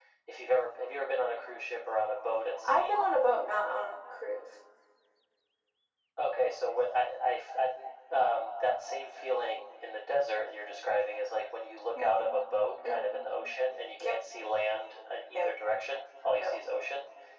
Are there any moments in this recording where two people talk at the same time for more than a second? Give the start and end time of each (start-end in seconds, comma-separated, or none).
none